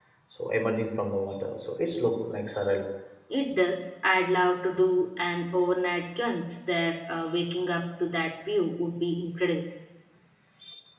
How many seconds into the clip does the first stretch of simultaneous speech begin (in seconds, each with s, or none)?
none